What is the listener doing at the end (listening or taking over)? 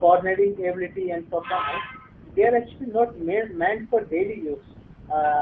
listening